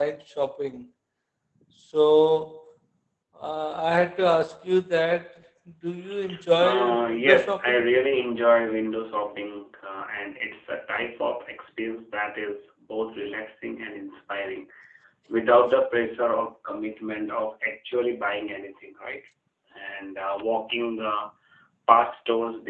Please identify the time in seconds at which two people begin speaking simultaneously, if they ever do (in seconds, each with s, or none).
6.6 s